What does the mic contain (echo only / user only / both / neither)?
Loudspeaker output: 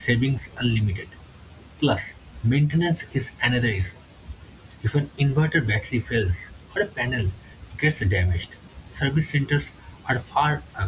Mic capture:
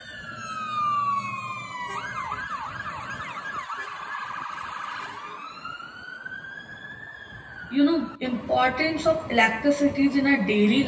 user only